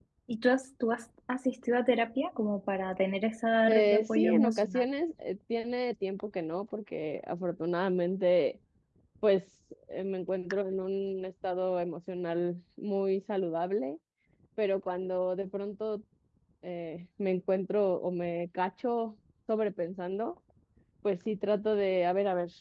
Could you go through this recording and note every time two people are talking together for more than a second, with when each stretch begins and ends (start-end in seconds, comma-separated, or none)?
3.7-4.9